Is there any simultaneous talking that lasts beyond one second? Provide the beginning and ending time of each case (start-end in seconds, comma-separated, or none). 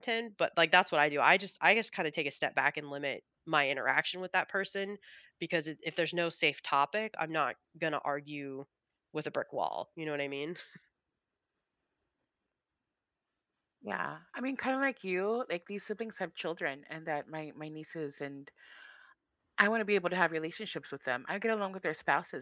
none